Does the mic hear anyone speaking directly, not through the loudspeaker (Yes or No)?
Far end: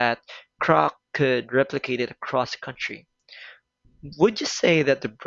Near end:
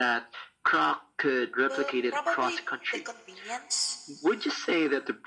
Yes